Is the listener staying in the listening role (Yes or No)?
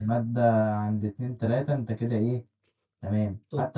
Yes